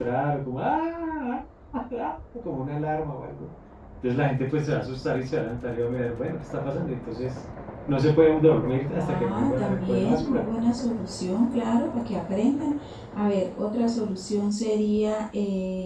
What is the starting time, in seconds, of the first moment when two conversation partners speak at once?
9 s

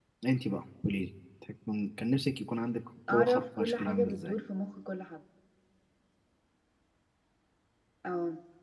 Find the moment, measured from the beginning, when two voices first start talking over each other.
3 s

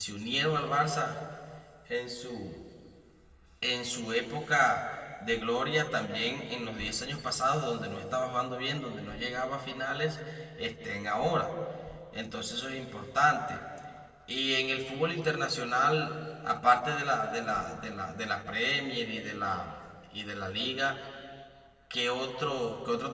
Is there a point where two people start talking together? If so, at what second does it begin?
none

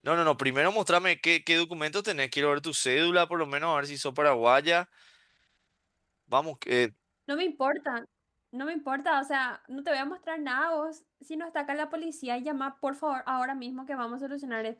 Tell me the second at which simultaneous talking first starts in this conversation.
none

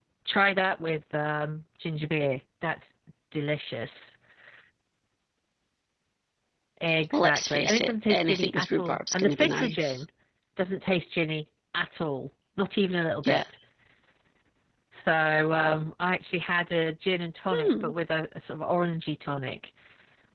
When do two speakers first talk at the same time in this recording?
7 s

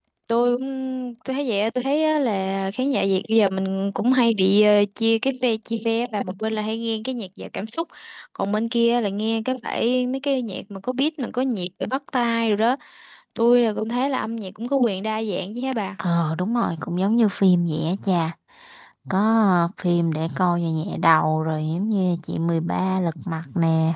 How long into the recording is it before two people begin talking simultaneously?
none

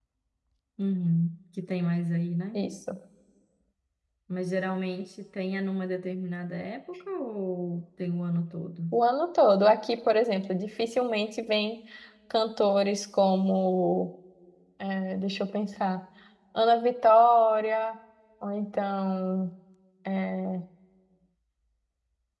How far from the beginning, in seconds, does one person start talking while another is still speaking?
none

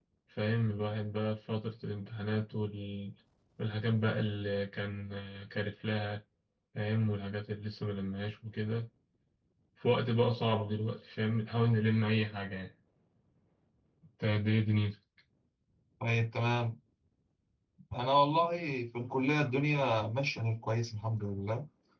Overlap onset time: none

